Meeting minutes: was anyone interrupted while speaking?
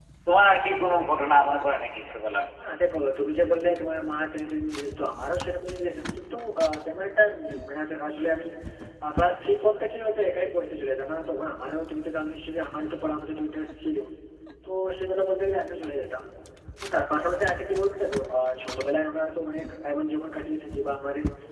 No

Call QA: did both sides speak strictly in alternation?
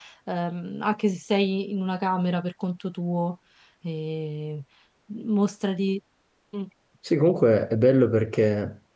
Yes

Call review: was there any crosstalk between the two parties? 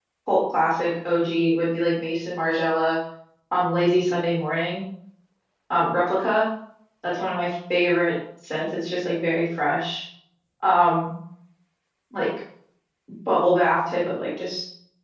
No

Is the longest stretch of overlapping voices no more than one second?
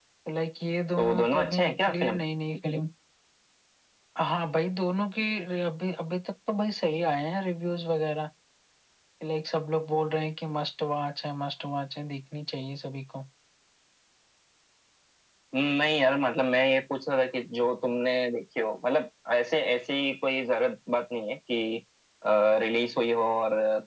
No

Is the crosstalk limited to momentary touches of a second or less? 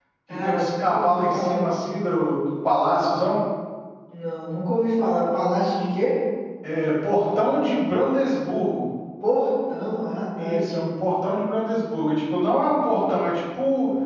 No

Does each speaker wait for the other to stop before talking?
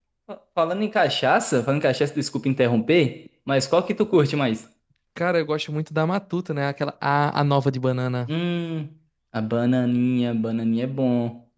Yes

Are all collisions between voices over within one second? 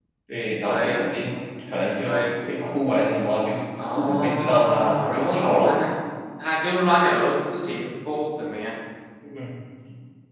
No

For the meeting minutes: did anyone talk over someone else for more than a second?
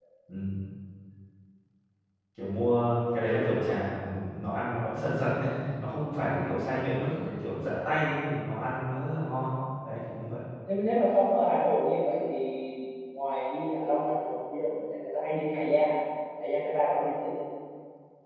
No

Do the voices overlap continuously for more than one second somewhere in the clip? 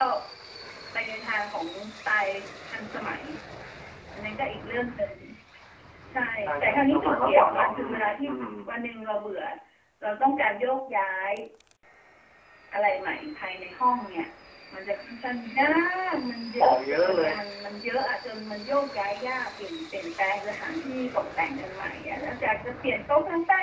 Yes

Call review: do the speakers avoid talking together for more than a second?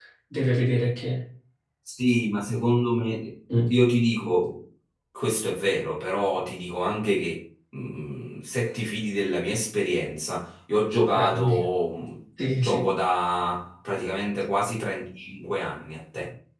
Yes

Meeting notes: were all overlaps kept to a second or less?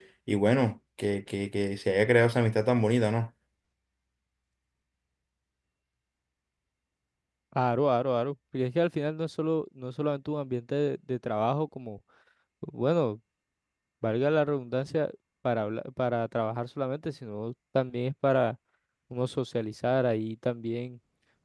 Yes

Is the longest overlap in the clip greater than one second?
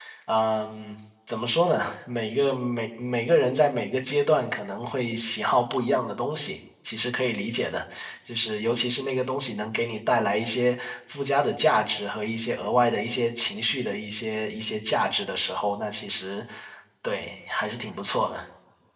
No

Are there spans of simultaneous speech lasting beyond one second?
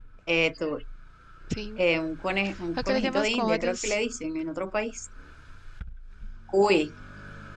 Yes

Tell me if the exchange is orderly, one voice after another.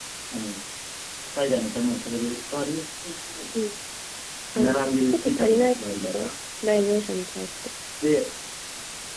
No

